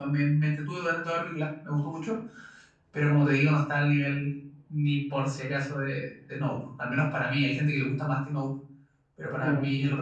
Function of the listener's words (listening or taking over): taking over